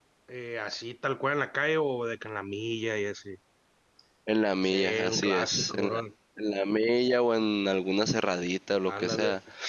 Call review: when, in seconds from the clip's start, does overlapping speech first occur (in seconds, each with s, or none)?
4.6 s